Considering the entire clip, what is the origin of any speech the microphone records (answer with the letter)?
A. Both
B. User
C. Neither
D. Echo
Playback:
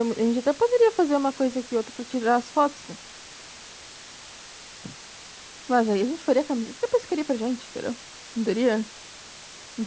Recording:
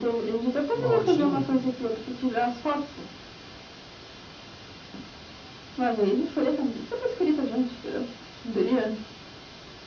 A